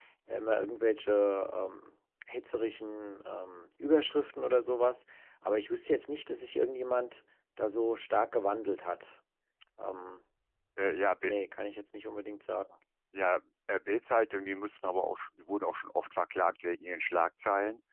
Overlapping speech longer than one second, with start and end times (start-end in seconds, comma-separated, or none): none